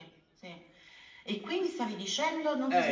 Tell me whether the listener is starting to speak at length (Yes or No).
Yes